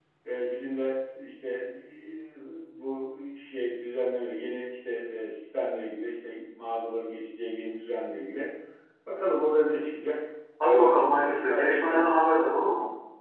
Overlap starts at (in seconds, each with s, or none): 10.6 s